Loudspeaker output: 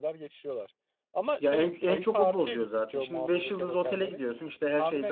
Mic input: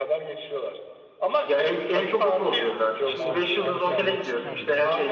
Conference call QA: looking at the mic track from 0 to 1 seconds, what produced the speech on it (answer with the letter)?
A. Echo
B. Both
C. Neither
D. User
A